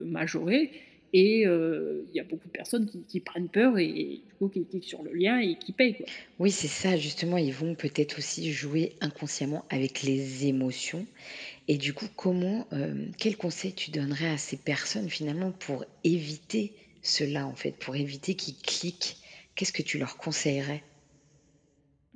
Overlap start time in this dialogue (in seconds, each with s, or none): none